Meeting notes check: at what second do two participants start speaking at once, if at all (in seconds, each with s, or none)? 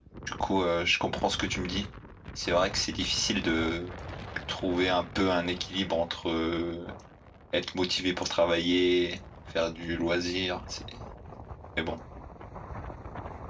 none